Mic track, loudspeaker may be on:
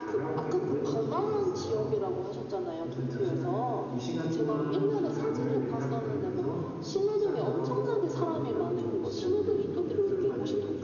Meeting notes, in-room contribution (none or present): present